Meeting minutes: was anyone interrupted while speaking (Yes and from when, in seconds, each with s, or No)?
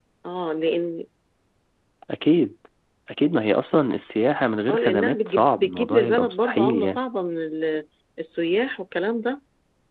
Yes, from 4.7 s